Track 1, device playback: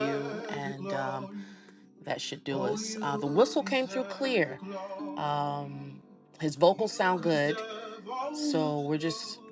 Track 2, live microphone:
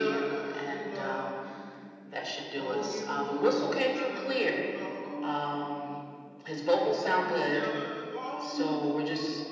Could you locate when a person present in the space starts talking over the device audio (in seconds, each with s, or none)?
none